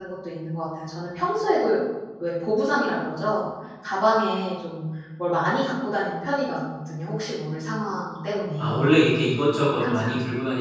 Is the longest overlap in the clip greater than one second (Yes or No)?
No